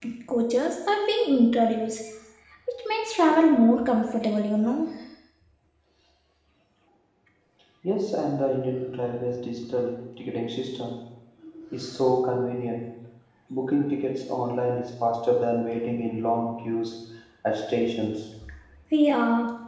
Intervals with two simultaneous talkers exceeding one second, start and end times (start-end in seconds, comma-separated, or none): none